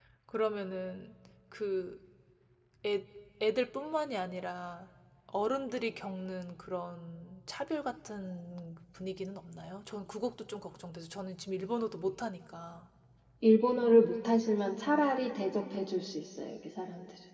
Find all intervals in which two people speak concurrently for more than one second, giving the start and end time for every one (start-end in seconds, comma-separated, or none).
none